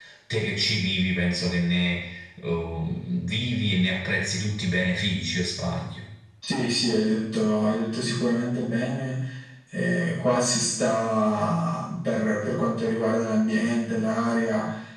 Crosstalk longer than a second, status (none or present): none